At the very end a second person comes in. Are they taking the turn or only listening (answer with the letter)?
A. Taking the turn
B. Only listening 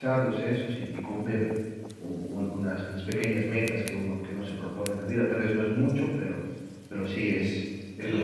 A